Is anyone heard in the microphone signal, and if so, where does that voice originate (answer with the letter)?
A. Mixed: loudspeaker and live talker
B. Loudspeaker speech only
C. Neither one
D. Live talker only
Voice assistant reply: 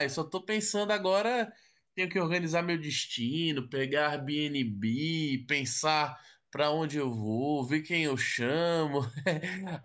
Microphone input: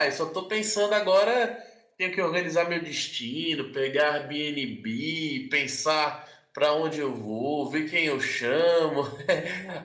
B